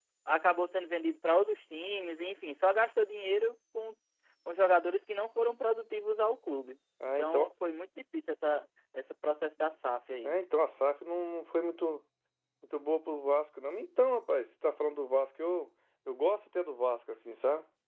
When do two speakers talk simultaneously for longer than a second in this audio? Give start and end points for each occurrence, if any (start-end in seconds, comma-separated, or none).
none